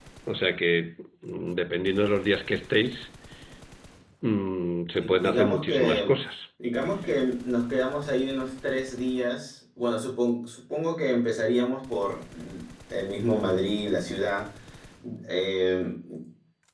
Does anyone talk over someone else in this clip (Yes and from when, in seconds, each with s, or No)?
Yes, from 4.9 s